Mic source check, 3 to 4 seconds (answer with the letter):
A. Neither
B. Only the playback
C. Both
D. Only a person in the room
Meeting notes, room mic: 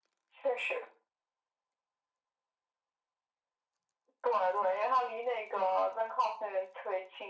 A